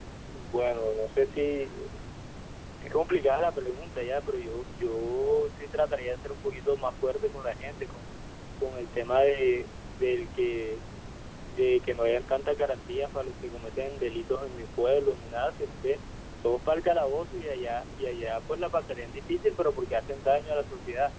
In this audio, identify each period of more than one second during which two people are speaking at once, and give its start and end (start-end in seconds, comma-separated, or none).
none